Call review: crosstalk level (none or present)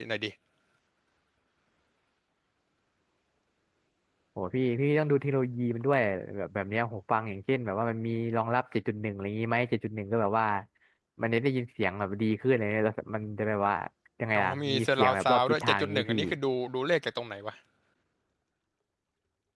present